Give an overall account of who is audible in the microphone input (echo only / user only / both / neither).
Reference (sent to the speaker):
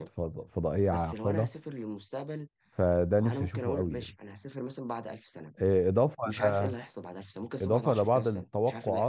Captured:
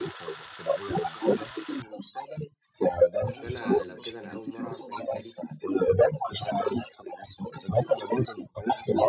both